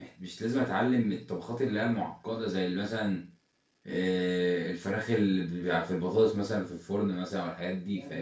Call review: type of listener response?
taking over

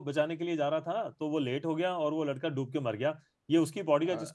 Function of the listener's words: listening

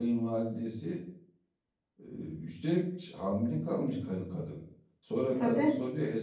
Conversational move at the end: listening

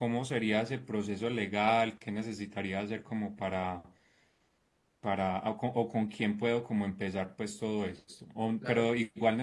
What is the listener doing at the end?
listening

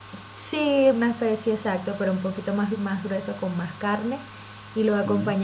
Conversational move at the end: listening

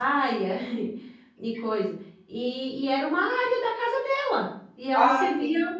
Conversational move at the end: listening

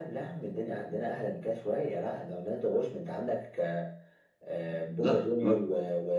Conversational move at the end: listening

